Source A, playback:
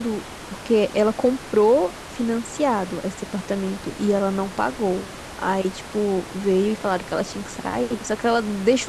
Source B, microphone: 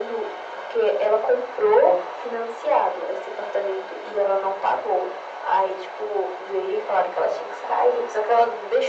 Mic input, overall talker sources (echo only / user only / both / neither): echo only